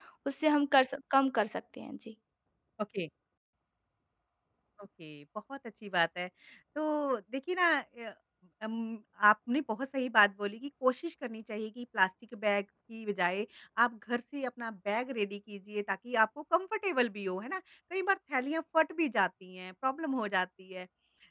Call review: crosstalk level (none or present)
none